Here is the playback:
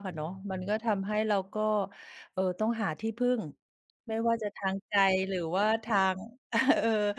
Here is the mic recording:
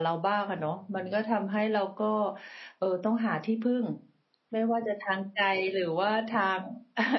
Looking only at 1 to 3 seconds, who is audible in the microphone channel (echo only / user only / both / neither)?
echo only